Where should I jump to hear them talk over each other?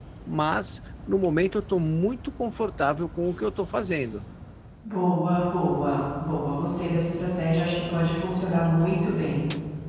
none

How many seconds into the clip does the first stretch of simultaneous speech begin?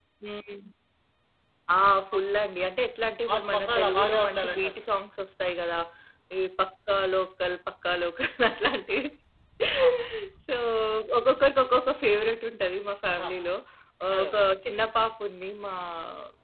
3 s

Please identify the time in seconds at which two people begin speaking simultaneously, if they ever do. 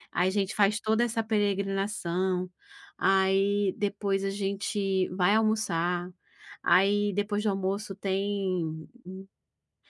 none

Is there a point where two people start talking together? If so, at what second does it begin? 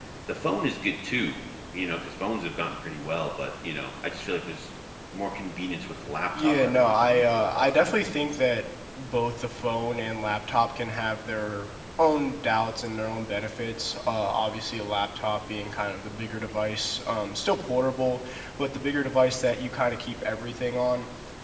6 s

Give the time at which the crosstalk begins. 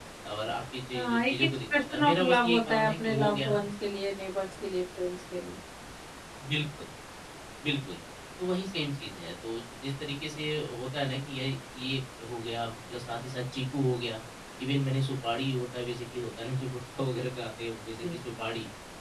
1 s

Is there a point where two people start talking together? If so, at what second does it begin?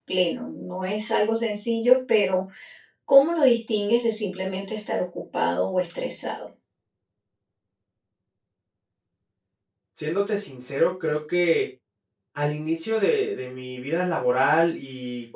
none

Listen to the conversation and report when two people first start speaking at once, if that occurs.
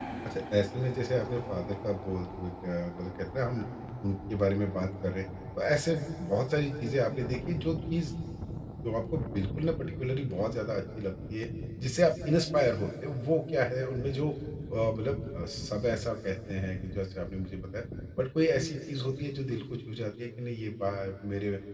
none

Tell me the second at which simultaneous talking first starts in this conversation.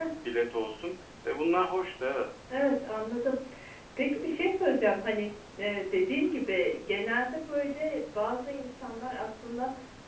none

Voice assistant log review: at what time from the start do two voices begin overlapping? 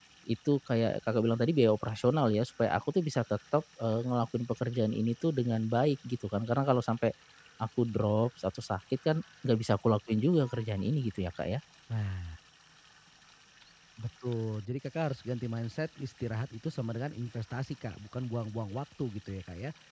none

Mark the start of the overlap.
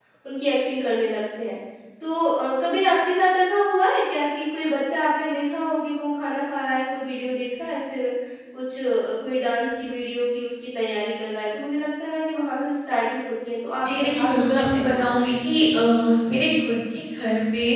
14 s

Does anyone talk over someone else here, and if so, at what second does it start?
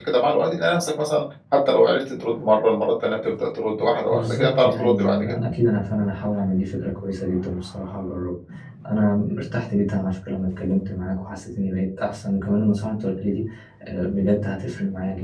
4 s

